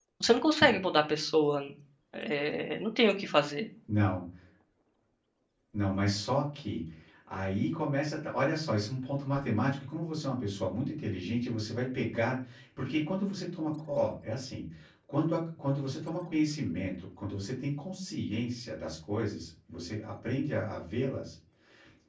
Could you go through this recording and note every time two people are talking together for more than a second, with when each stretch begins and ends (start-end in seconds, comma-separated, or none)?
none